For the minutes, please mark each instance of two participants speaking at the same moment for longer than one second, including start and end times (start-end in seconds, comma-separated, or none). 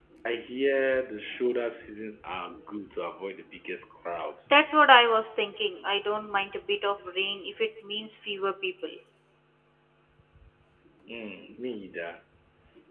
none